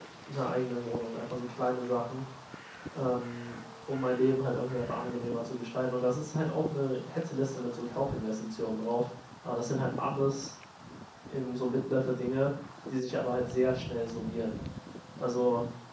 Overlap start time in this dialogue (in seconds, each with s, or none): none